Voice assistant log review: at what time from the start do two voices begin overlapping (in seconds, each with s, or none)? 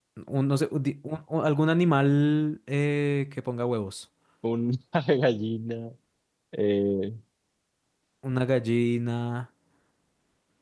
none